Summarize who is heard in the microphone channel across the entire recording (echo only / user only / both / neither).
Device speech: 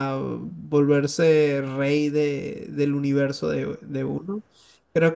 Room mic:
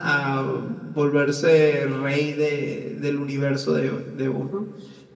echo only